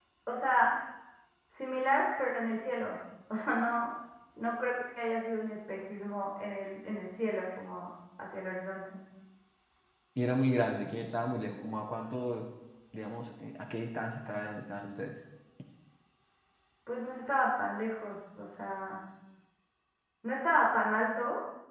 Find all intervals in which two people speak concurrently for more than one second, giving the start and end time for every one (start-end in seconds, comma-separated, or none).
none